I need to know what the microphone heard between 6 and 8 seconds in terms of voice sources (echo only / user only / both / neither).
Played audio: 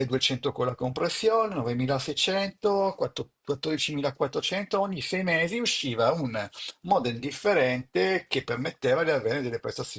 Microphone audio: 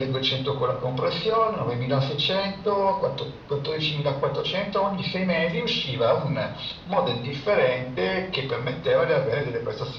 echo only